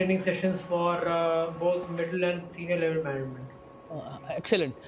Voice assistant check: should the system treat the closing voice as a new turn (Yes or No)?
Yes